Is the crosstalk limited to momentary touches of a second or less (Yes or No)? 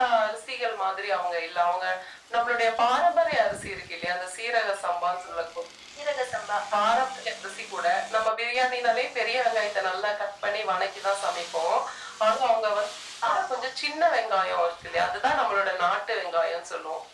Yes